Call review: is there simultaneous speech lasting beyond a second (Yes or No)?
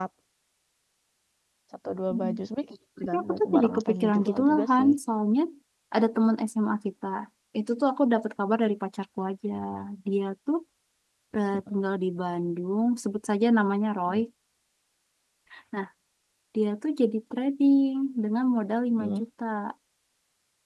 Yes